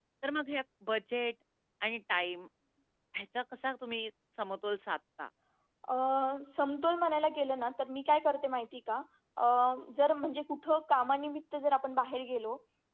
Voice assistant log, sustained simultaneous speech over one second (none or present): none